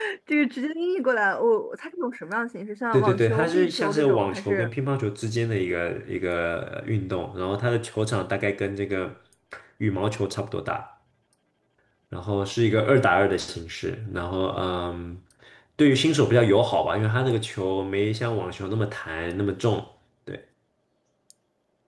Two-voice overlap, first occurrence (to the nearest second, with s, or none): 3 s